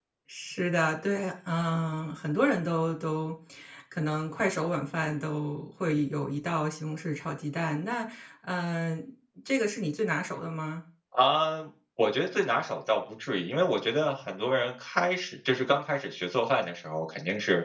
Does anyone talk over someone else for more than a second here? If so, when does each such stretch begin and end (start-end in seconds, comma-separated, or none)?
none